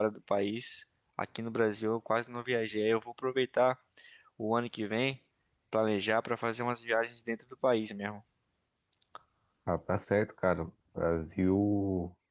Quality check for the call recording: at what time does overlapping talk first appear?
none

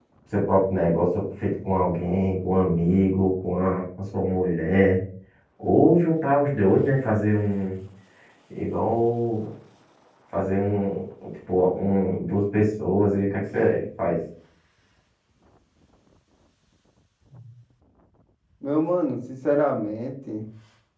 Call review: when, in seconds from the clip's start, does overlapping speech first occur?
none

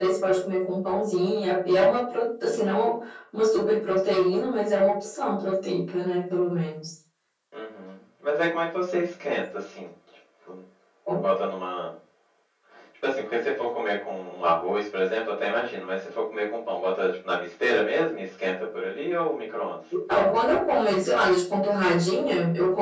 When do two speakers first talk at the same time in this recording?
none

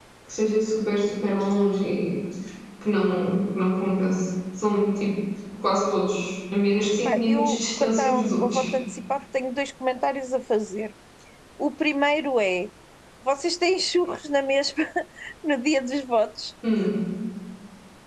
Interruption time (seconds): 7.0 s

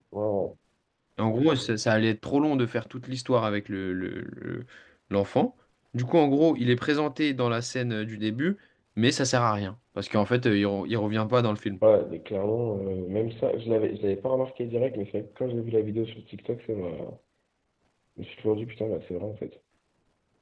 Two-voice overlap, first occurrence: none

